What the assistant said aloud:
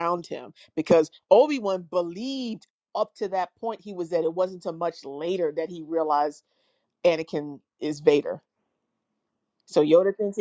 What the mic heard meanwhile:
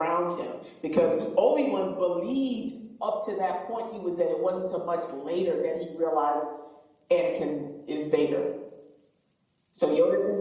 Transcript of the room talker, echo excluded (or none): none